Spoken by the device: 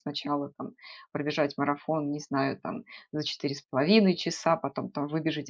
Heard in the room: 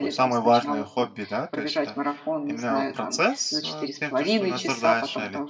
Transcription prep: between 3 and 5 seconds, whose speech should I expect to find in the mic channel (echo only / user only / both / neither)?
both